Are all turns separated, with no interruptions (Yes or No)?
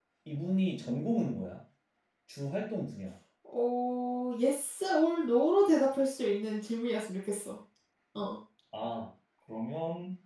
Yes